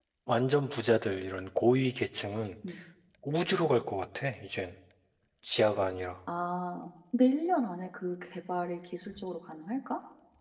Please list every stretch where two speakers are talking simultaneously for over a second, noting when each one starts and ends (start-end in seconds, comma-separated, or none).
none